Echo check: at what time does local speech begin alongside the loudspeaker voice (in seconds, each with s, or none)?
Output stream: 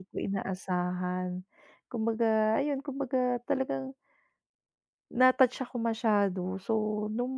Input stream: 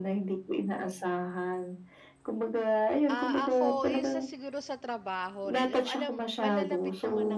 3.1 s